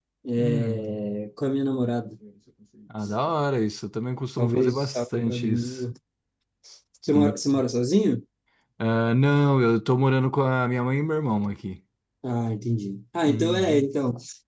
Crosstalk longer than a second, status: present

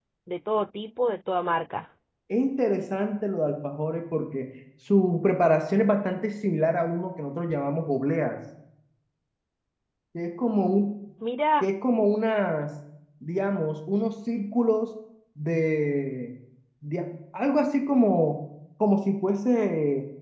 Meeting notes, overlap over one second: none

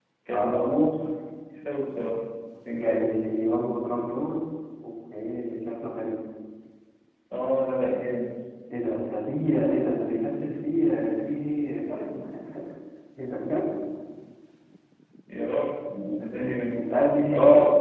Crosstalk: present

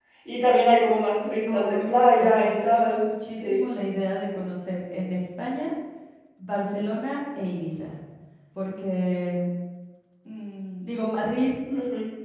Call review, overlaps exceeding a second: present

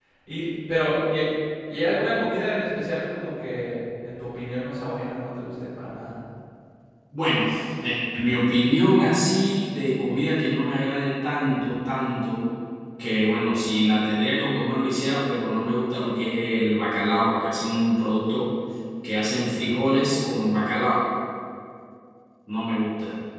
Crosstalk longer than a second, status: none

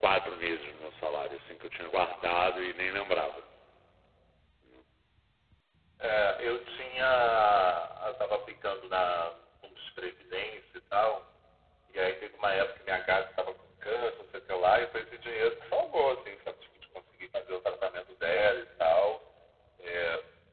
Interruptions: none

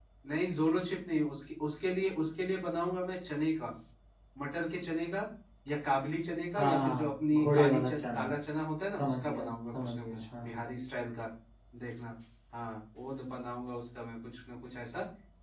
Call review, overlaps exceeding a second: present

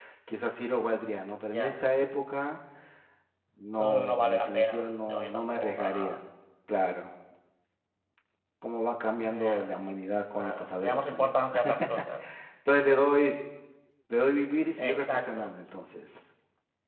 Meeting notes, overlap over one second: present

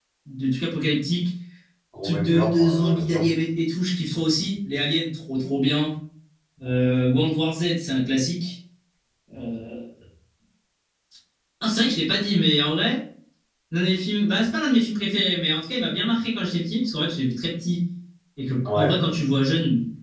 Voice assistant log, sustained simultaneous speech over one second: present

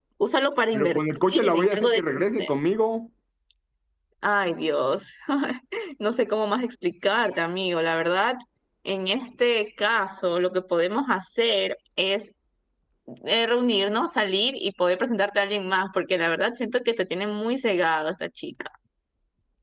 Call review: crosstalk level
present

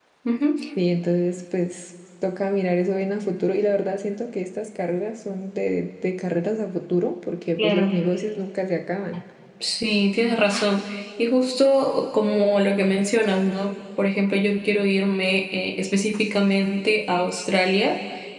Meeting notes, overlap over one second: none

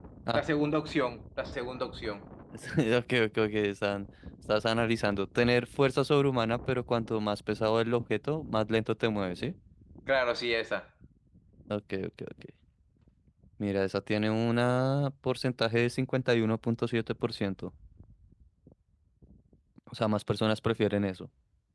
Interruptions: none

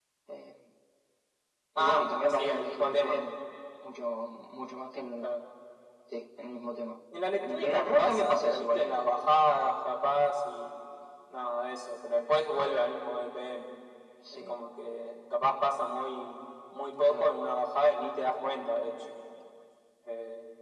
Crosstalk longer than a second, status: present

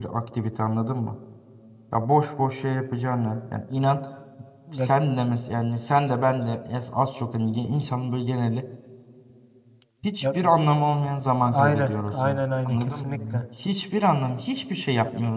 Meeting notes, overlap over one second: present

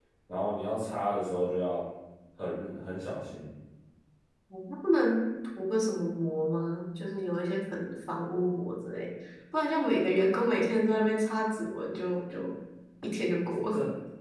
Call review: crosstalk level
none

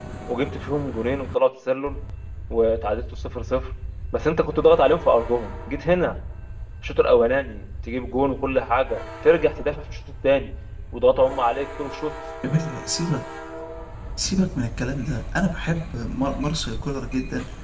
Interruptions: none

